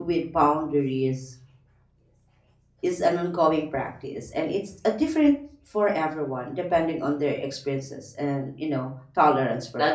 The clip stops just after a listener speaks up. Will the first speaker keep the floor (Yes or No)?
No